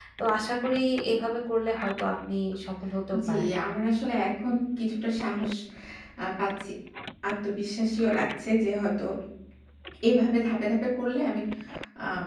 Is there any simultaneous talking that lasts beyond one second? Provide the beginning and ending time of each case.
none

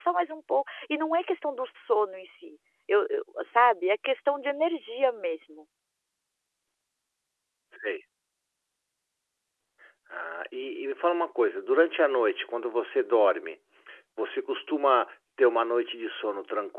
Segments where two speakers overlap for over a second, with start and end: none

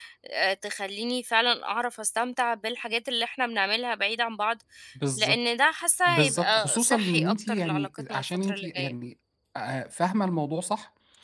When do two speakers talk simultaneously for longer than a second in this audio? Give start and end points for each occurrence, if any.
6.1-8.9

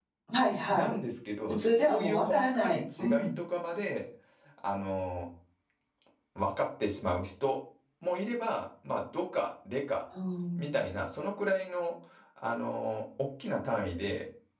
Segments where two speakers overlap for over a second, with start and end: 1.5-3.3

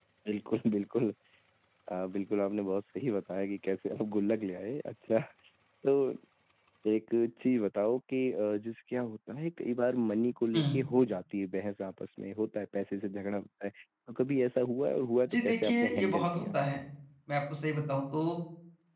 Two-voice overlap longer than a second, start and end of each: 15.3-16.6

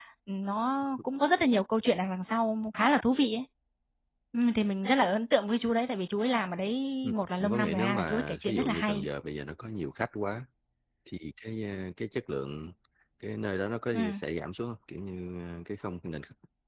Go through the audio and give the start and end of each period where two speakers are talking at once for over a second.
7.0-9.1

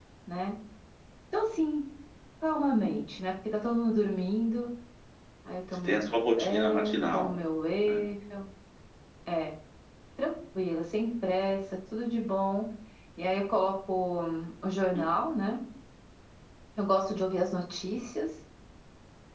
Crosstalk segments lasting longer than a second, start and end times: 5.8-7.3

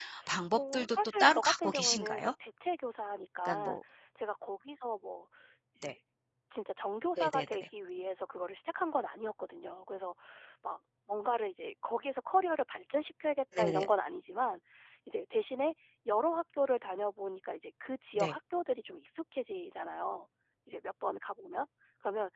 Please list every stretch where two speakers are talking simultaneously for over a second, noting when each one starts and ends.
0.6-2.3

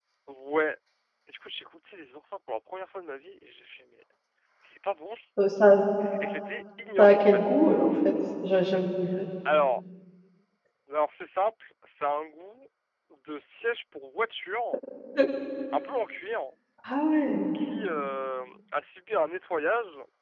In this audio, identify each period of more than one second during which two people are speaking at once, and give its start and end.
none

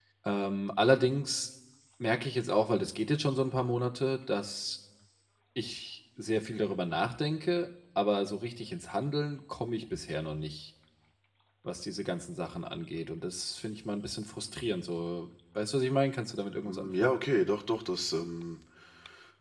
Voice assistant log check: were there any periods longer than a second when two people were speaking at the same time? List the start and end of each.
none

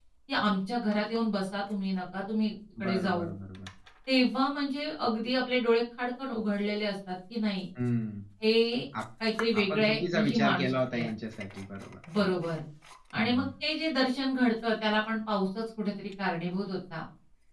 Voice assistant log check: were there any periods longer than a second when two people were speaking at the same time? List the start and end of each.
9.6-11.1

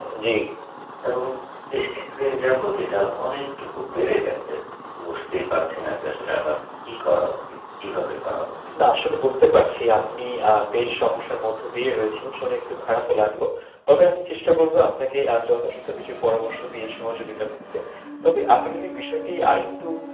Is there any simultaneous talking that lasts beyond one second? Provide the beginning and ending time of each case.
none

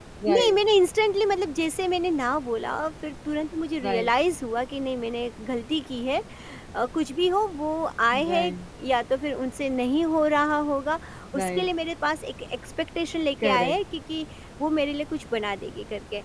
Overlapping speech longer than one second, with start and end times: none

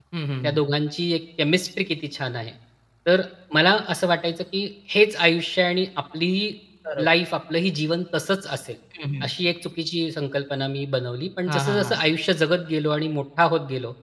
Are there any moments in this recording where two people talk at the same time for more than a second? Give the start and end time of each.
none

